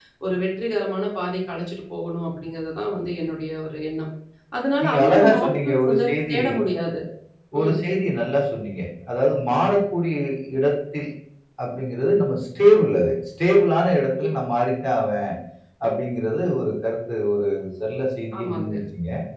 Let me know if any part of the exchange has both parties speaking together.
Yes, from 4.8 s

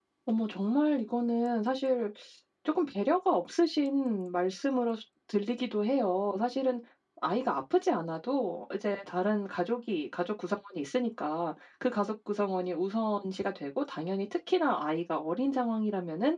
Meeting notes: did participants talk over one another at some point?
No

